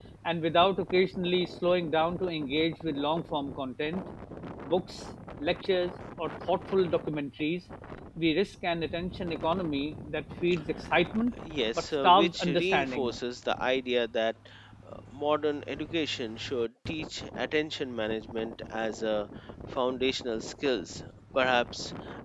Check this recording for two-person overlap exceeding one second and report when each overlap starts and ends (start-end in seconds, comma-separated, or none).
11.8-13.2